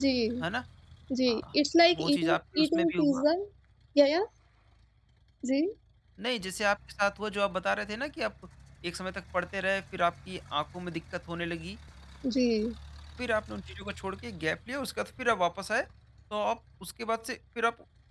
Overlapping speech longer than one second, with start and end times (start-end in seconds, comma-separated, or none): 2.0-3.2